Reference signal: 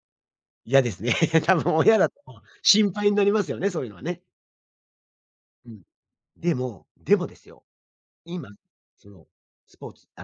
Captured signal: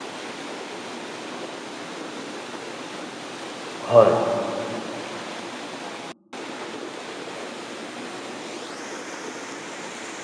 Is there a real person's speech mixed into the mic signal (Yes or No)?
Yes